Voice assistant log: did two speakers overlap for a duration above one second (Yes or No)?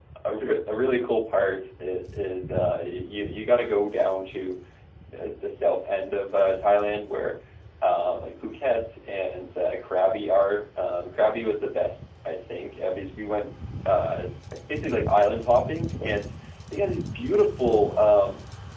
No